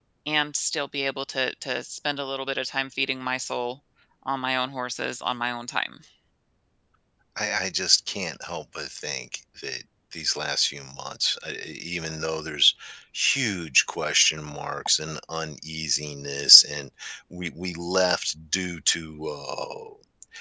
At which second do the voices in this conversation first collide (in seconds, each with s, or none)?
none